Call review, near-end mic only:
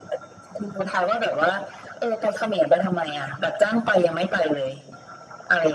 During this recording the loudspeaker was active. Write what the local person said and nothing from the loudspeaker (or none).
none